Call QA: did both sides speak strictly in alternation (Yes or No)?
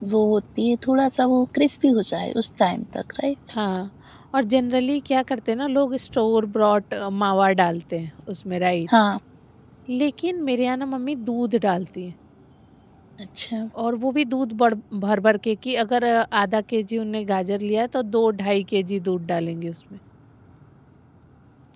Yes